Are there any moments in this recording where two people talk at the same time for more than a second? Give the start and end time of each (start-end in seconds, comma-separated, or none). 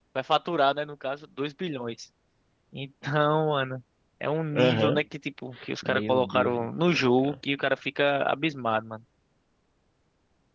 5.8-7.3